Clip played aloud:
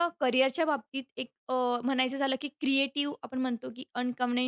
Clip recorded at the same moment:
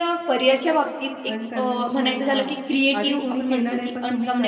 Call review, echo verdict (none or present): present